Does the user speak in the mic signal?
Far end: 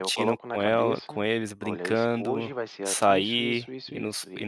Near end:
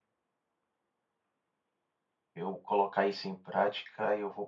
Yes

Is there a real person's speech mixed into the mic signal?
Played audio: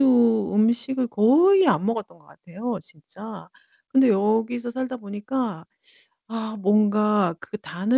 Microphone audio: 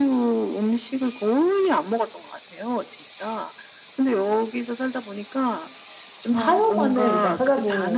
Yes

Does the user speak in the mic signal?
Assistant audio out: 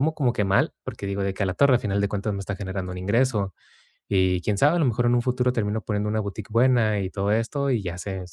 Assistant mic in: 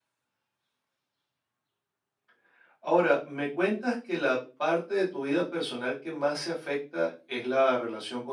Yes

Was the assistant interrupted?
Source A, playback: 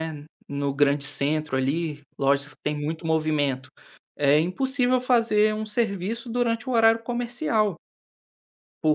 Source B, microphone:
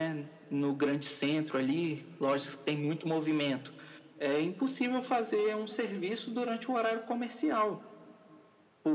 No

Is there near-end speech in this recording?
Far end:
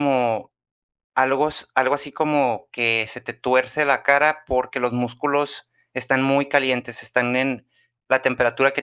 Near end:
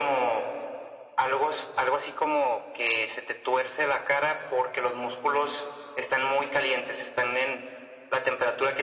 No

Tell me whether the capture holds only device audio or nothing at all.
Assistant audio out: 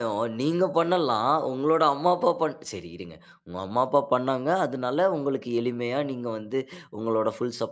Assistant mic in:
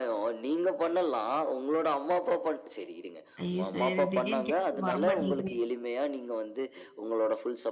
No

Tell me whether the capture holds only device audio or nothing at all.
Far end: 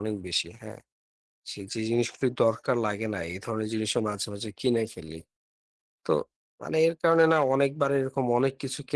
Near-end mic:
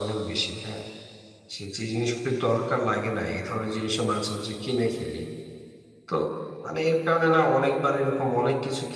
Yes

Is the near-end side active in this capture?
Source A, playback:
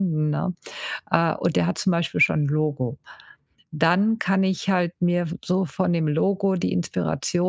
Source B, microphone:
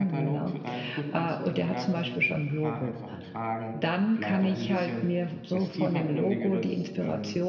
Yes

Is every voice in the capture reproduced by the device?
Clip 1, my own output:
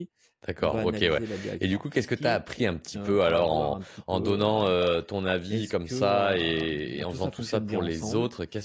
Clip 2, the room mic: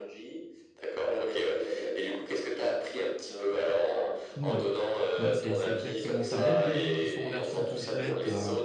No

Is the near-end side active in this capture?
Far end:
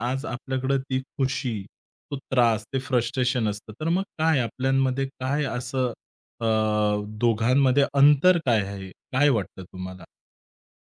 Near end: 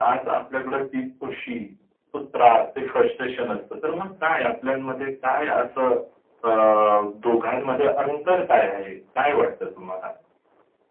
No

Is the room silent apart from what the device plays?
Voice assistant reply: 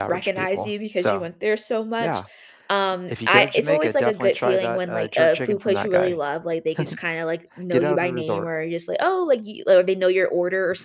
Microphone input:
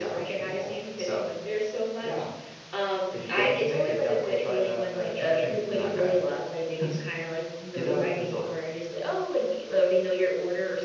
Yes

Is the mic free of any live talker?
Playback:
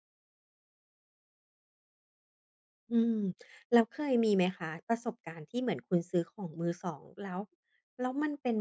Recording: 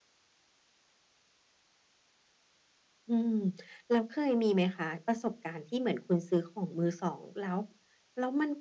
Yes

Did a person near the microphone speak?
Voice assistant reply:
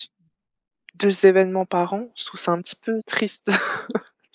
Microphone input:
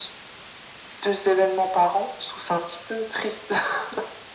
No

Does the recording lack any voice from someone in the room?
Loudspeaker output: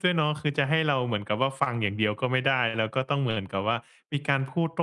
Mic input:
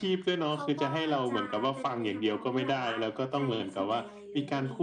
No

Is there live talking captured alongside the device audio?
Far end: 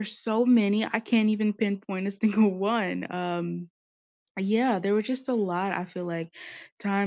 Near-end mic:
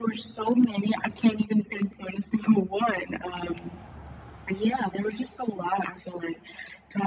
No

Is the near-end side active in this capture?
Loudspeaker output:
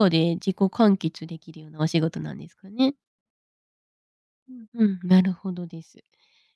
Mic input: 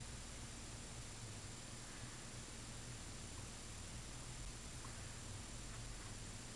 No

